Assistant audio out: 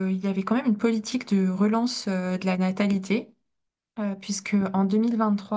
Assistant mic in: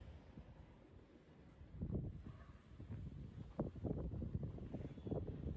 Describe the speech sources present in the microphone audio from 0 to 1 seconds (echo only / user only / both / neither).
neither